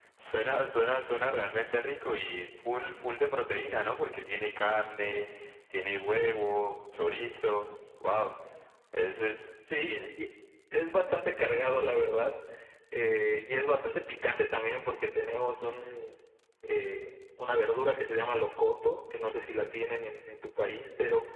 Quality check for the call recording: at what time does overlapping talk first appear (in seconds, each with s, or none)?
none